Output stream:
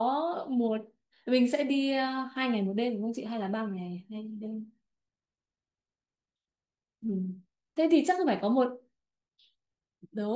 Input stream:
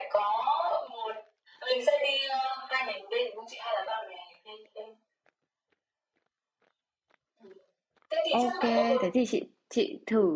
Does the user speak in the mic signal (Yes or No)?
Yes